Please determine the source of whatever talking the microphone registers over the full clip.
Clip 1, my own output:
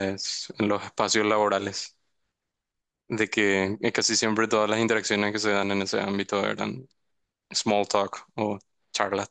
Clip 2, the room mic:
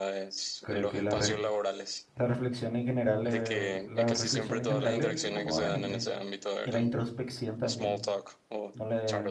both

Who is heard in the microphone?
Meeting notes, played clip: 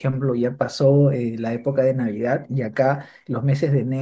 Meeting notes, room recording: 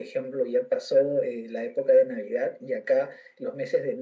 echo only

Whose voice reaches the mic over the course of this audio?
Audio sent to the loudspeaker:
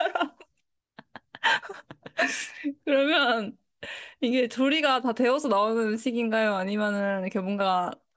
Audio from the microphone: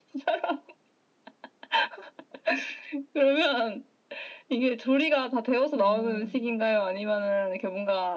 both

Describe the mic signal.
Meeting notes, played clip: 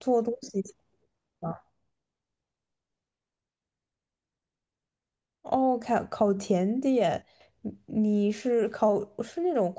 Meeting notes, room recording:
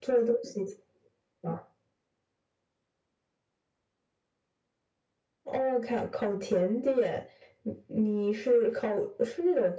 echo only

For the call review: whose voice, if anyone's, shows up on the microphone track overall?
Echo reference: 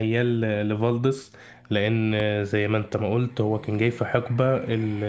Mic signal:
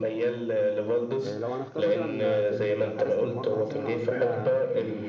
both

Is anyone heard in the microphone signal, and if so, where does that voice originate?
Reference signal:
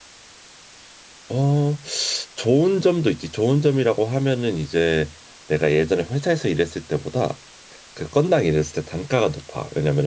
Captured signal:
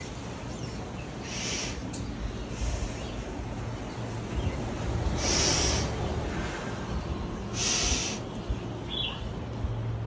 neither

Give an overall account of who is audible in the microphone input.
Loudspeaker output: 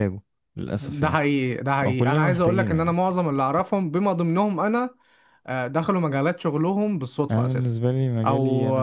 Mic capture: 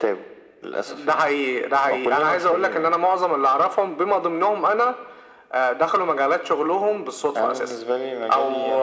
echo only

